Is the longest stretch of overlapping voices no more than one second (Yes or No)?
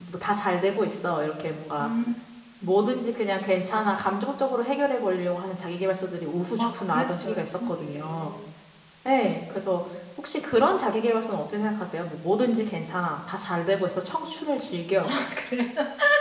No